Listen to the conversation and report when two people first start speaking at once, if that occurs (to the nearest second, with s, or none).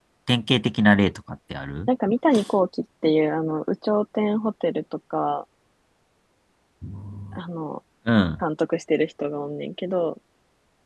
none